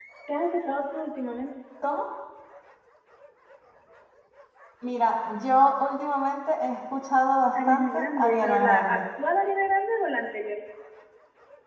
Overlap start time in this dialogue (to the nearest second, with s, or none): 8 s